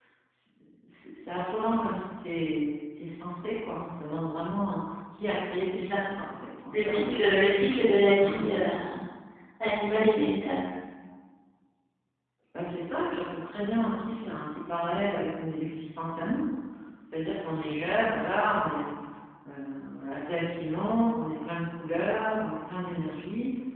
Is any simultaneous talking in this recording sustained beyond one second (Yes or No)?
No